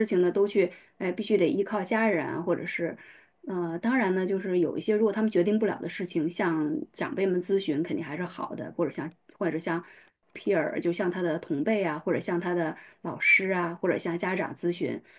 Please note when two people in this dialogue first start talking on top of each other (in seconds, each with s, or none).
none